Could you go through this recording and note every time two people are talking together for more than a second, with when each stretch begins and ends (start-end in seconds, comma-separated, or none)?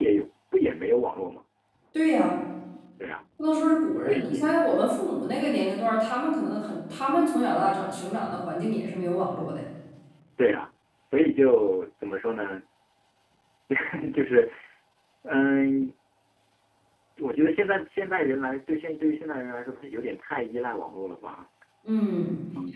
none